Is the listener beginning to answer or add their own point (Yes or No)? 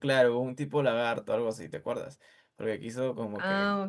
Yes